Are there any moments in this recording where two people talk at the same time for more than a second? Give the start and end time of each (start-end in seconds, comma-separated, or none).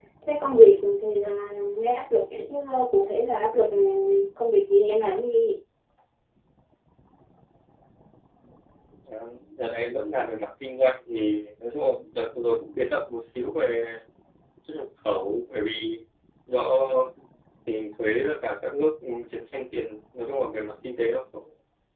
none